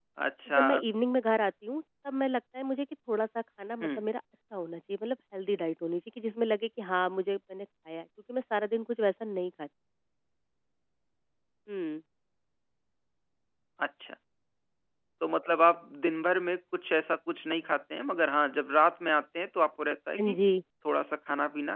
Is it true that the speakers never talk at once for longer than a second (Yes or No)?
Yes